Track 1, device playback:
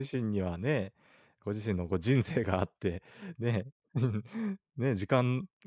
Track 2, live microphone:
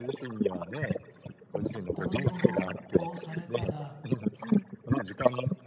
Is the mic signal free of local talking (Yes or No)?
No